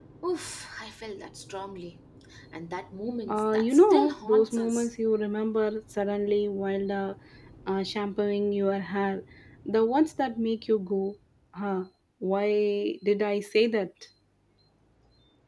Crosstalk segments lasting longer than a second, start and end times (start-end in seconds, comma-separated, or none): 3.3-4.9